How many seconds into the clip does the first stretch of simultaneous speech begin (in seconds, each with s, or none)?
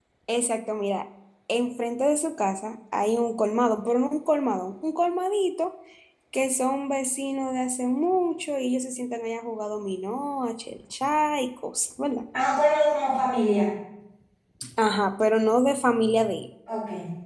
none